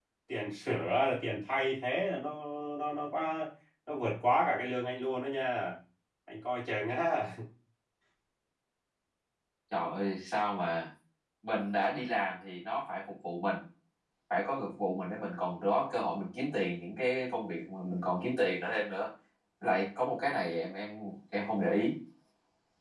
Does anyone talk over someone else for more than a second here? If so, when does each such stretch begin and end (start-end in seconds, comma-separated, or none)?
none